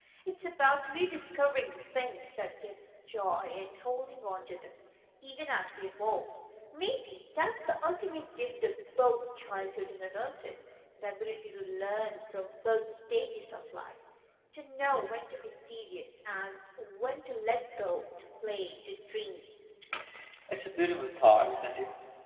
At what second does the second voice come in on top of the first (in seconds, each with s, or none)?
none